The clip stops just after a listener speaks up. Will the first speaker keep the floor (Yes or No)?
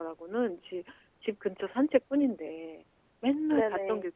Yes